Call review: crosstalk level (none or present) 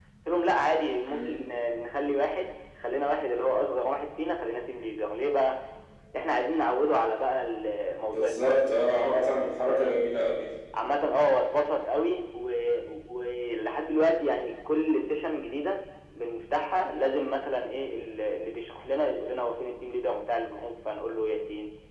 present